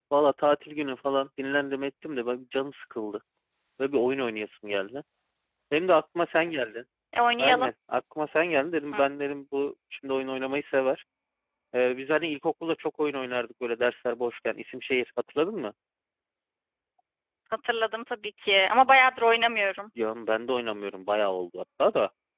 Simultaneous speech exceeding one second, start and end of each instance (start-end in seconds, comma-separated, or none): none